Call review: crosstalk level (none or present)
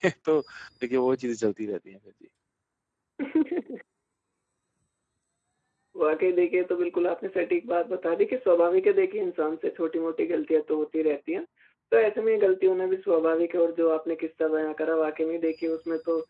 none